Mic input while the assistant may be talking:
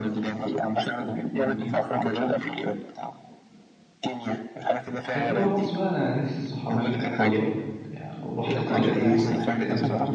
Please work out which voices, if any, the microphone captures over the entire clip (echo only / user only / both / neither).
both